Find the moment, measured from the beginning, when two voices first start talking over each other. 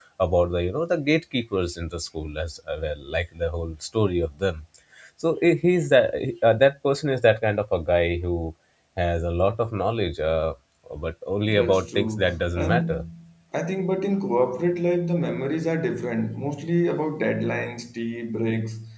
11.5 s

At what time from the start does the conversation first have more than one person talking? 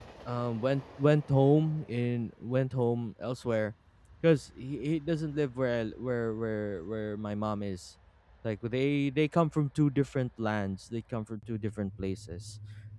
none

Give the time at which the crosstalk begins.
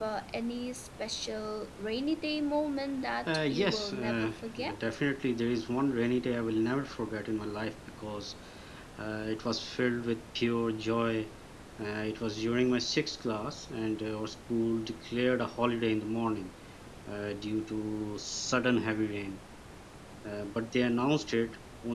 3.3 s

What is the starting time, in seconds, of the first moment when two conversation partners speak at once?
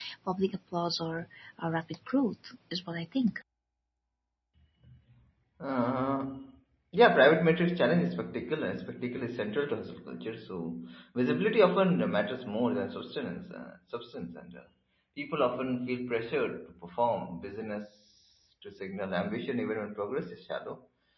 none

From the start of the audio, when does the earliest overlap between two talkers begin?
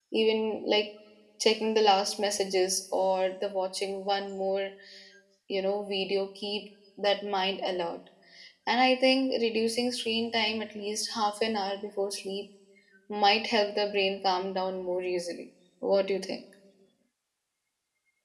none

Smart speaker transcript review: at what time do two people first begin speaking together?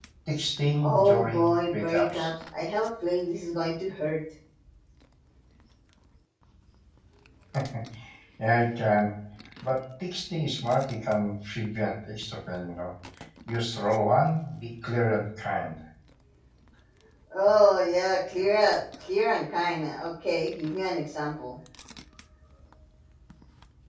0.8 s

